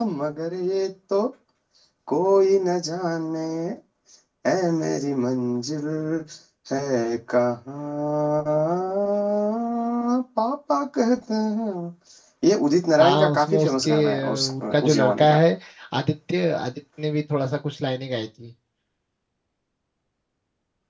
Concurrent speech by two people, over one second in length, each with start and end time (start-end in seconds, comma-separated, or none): 13.0-15.4